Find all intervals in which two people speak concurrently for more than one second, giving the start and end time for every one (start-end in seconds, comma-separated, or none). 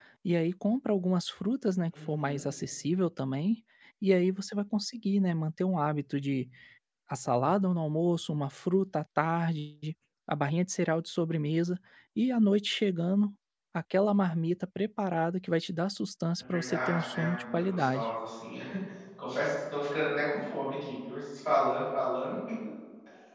16.4-18.1